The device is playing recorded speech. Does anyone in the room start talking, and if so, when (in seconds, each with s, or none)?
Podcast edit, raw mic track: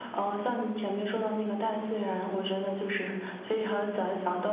none